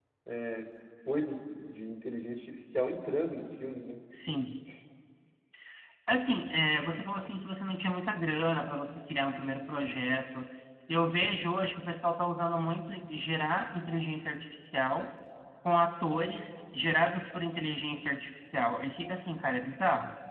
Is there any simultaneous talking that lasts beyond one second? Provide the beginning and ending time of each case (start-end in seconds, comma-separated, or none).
none